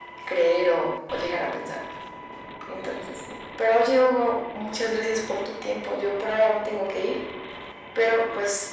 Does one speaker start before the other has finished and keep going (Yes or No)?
No